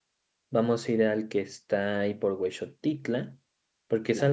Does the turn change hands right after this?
No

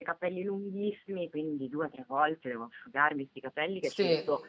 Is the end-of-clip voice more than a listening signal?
No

